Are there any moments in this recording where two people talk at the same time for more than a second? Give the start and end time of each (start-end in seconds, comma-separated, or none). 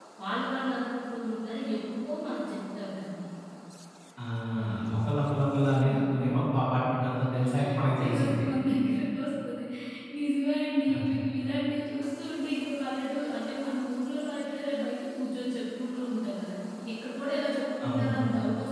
none